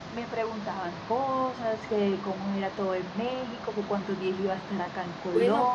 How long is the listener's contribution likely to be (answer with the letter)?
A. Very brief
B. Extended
B